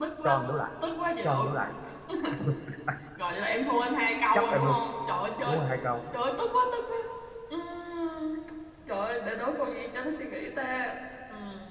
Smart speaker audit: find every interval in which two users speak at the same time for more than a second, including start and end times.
none

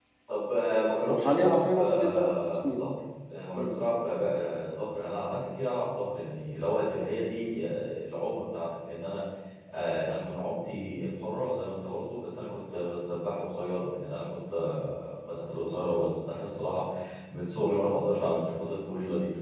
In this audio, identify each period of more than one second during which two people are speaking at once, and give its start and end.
1.1-2.8

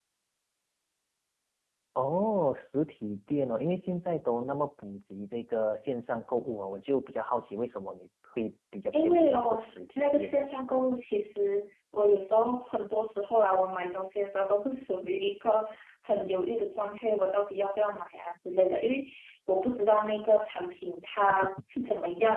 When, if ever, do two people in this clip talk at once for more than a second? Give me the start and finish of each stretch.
8.9-10.4

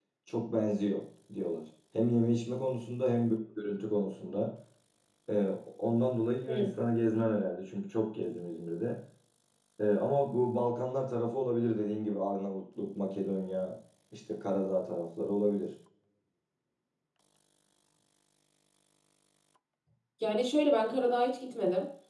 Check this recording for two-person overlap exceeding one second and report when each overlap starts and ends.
none

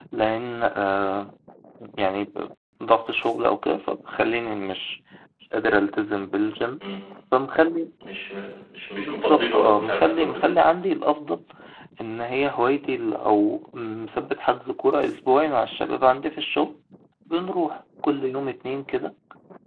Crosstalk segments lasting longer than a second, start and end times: 9.0-10.5

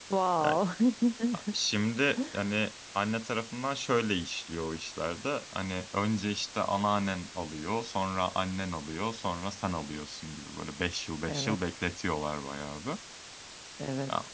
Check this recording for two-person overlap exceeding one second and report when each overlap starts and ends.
none

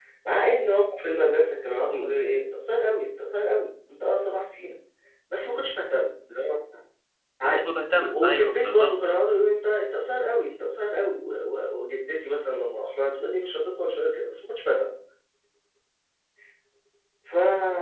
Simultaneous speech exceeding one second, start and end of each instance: 7.4-9.0

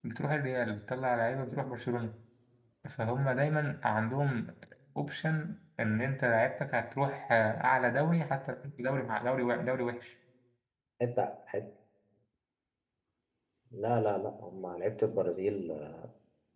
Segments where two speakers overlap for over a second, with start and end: none

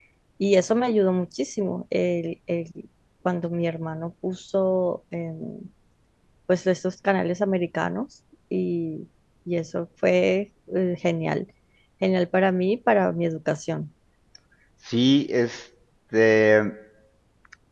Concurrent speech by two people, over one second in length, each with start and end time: none

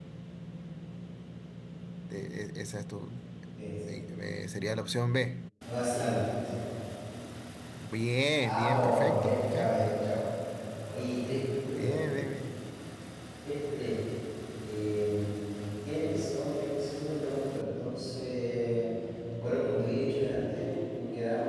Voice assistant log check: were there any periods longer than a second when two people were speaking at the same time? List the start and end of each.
8.4-9.8

